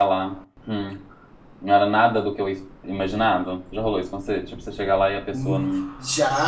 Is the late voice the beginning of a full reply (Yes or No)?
Yes